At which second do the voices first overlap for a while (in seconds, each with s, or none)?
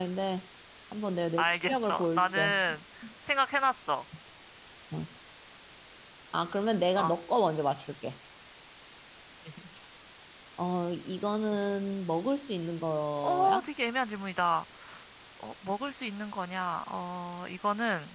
1.4 s